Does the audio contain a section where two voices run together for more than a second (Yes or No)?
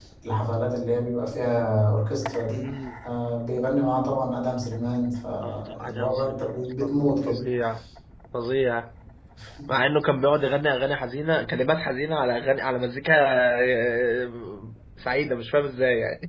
Yes